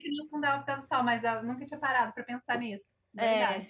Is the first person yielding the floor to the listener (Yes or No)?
Yes